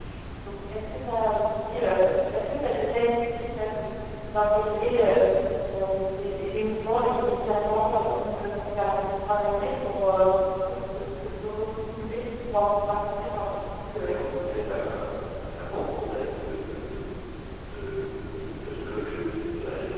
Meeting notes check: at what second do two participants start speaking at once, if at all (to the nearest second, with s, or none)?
14 s